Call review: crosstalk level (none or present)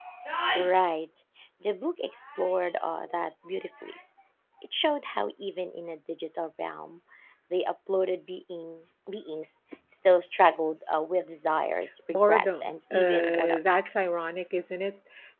present